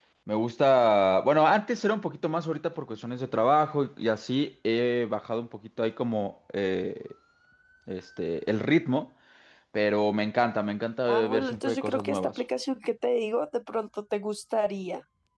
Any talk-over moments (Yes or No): Yes